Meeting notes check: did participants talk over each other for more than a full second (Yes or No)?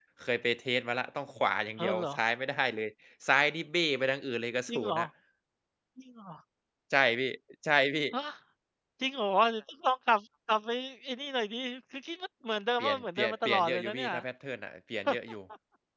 Yes